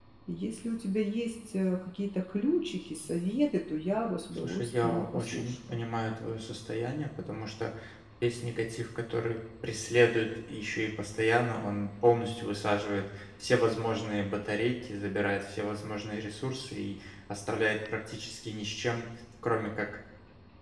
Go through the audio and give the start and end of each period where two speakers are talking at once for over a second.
4.3-5.8

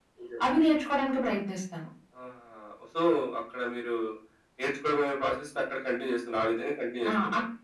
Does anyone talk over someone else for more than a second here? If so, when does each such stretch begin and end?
none

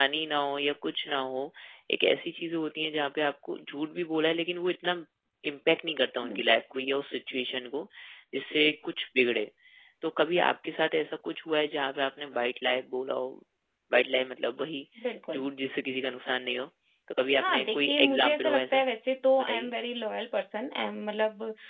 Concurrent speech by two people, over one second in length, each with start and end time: 17.4-18.8

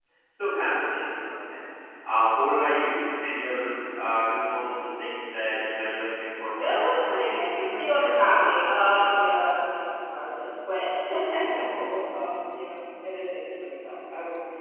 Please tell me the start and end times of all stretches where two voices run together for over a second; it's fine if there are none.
6.6-9.5

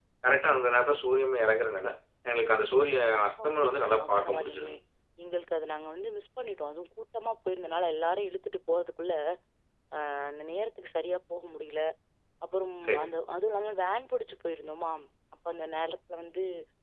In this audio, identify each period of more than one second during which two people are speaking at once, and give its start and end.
3.5-4.8

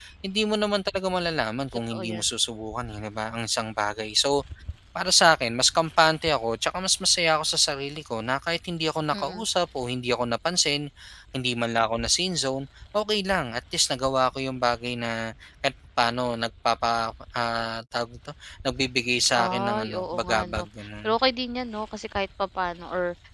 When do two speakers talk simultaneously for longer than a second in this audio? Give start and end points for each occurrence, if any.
19.4-20.6

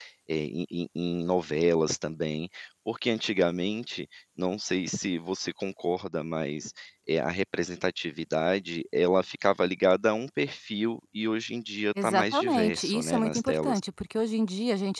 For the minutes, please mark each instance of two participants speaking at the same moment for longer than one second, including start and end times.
12.0-13.8

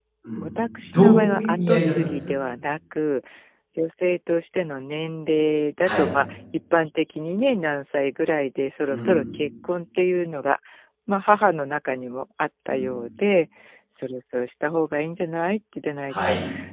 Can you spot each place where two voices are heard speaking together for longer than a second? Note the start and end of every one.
0.8-2.3

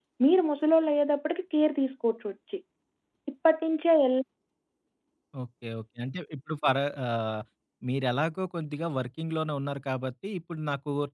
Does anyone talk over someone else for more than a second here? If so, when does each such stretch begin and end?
none

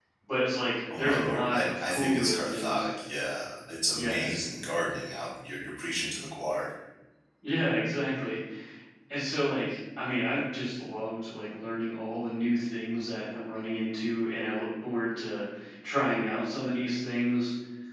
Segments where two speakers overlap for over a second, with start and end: 1.0-2.9

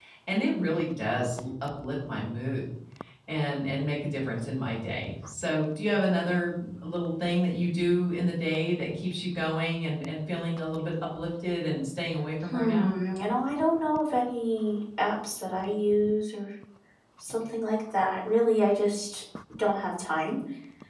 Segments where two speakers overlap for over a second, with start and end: none

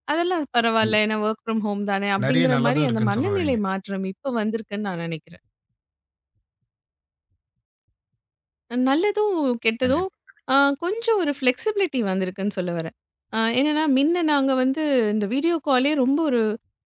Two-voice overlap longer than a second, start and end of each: 2.2-3.6

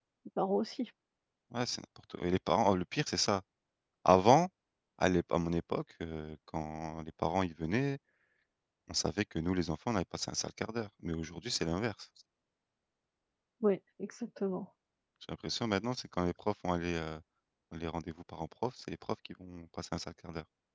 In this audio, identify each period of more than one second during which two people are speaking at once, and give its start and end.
none

